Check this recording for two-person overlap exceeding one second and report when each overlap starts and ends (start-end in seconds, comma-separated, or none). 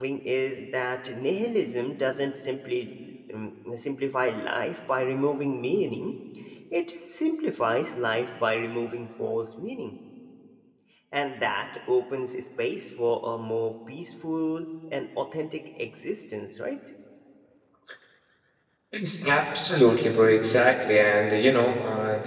none